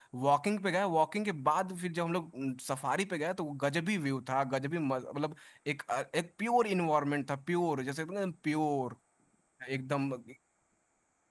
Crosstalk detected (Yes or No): No